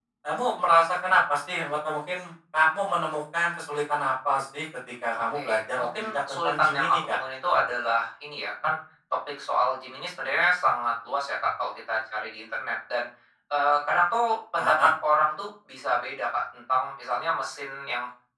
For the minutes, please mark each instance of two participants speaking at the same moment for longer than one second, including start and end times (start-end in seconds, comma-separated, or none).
5.3-7.2